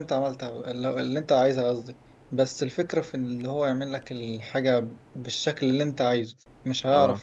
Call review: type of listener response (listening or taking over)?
listening